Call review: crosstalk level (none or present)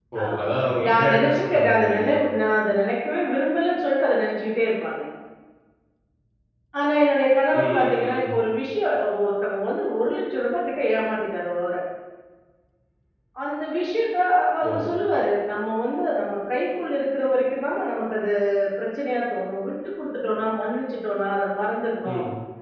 present